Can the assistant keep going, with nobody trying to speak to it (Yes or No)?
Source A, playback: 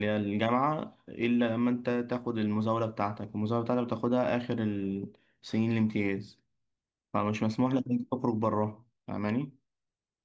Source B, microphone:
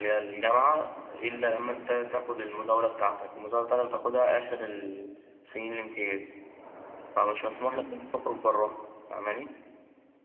Yes